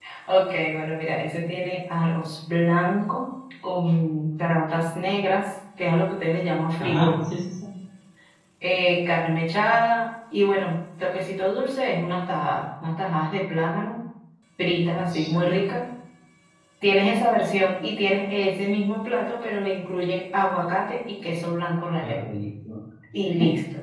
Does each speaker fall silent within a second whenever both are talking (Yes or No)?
Yes